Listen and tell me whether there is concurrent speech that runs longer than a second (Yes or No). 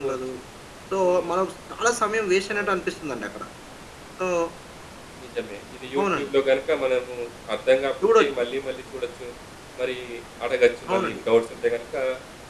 No